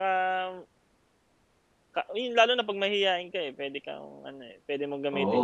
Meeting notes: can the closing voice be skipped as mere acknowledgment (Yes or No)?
No